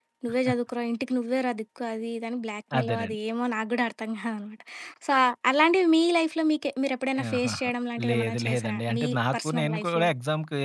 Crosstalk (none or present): present